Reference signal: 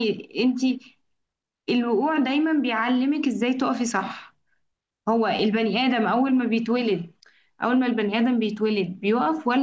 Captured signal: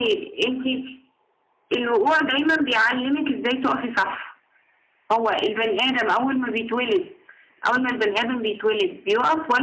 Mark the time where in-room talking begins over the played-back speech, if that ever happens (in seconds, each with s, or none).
none